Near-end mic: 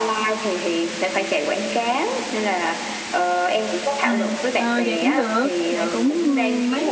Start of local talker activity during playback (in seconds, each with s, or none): 4.0 s